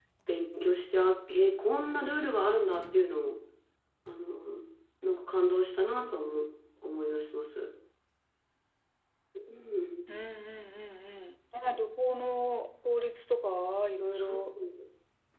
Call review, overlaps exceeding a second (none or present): none